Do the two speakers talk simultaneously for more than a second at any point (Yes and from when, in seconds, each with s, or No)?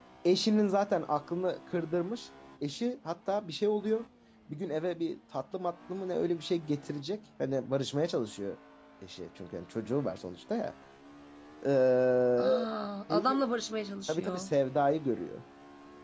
No